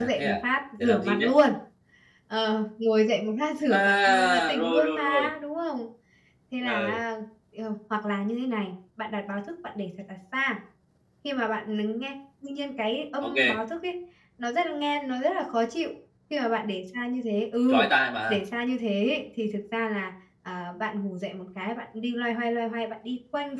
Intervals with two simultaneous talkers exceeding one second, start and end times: 3.7-5.3

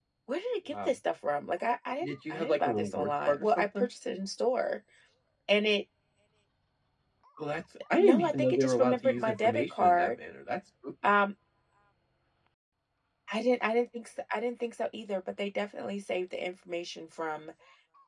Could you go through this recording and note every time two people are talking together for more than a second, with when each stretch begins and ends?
2.0-3.9, 8.0-10.1

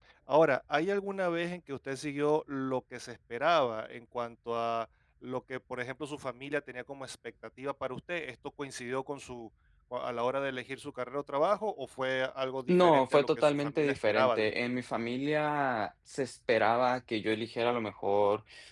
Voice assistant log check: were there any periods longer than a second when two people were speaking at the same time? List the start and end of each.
12.7-14.5

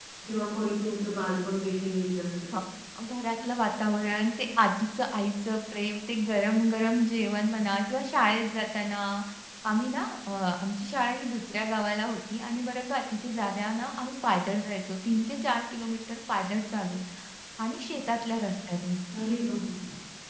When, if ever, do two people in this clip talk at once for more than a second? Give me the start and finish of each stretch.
none

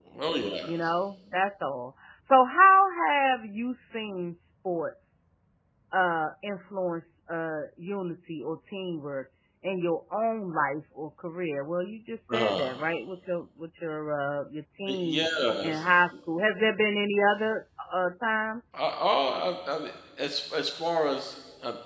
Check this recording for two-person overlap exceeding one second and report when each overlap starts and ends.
none

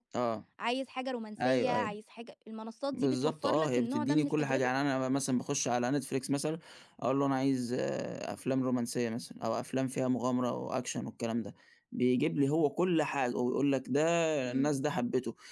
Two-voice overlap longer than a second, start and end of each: 2.9-4.7

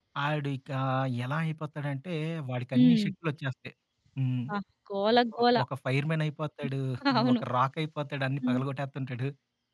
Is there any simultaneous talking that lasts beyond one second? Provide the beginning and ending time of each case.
none

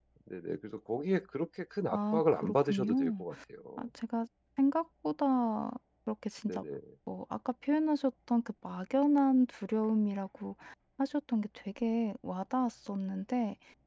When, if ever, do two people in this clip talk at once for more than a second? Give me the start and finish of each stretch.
1.9-3.2

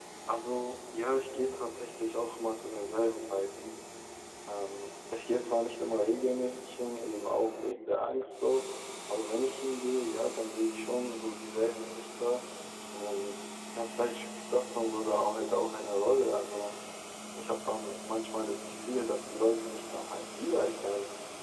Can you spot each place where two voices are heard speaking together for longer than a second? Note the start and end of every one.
none

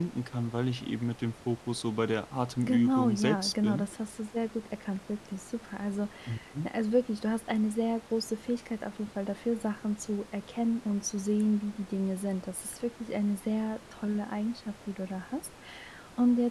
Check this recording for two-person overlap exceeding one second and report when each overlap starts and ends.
2.6-3.9

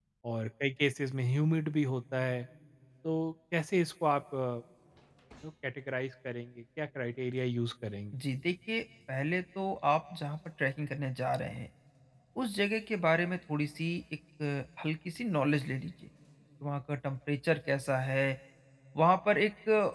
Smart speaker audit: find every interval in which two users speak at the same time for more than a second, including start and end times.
none

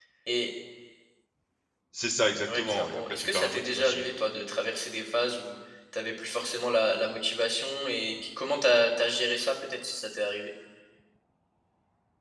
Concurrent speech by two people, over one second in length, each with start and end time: 2.5-4.0

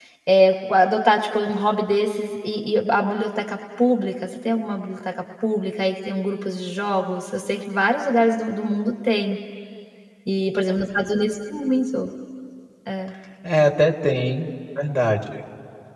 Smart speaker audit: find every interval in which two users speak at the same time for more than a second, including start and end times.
none

